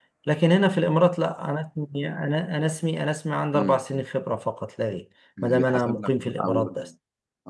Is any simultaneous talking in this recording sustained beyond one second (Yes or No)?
Yes